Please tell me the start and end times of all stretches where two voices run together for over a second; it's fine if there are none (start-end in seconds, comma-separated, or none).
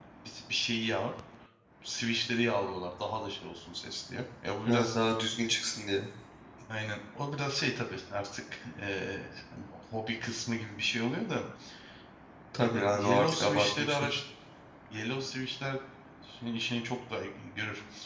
12.6-14.1